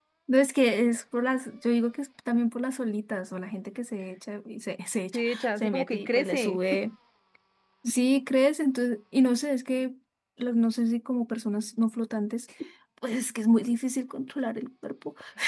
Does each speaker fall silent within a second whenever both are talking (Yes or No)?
No